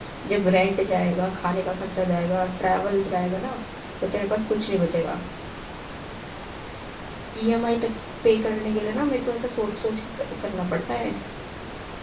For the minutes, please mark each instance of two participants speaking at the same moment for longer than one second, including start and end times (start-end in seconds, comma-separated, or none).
none